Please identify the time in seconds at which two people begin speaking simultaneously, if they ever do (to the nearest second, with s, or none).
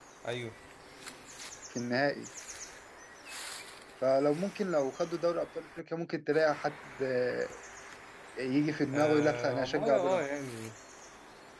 9 s